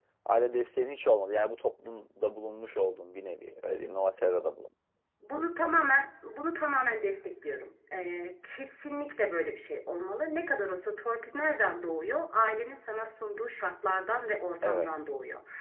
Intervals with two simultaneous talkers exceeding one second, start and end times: none

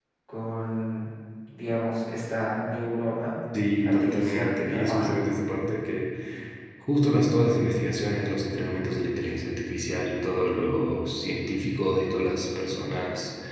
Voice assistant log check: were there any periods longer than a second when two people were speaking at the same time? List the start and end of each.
3.8-5.1

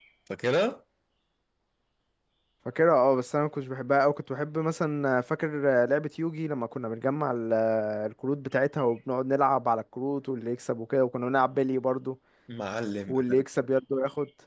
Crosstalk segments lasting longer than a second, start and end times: none

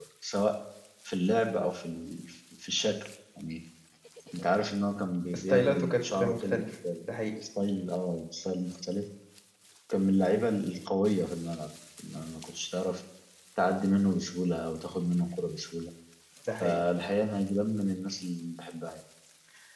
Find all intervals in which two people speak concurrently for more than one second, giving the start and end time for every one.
5.4-6.6

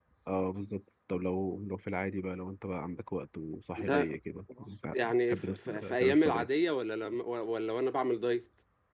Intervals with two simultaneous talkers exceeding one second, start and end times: 4.9-6.5

